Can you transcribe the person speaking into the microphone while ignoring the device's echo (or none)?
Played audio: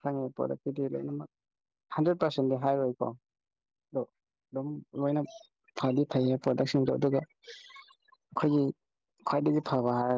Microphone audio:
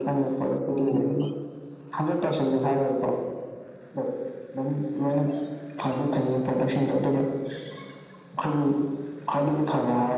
ꯎꯝ